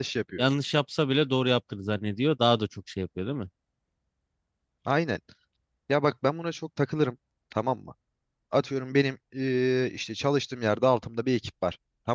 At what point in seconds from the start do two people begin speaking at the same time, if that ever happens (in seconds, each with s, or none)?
none